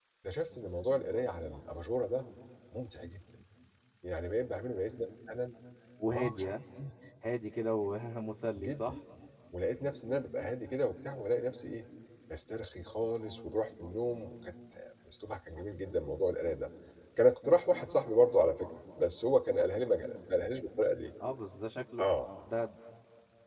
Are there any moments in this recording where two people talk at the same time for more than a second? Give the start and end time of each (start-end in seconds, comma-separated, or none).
none